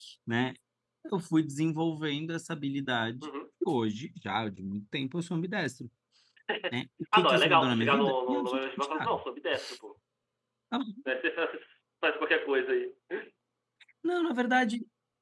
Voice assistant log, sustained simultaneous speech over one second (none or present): present